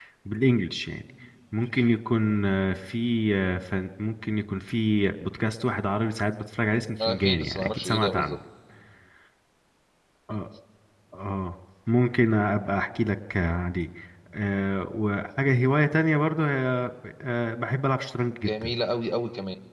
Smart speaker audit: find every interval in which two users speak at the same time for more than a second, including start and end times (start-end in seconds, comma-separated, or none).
7.0-8.4